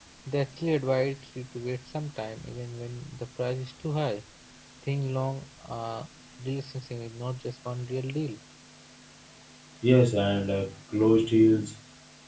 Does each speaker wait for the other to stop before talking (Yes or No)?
Yes